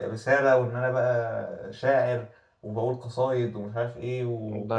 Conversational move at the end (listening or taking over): taking over